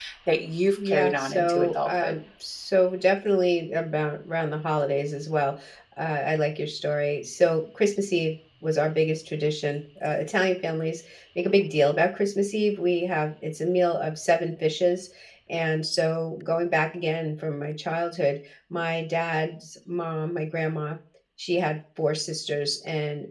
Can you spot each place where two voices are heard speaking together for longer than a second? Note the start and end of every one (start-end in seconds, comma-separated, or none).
0.8-2.1